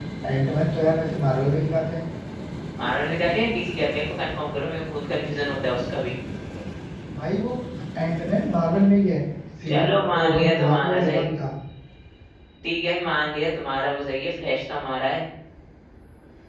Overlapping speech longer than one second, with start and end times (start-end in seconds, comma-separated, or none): 9.7-11.2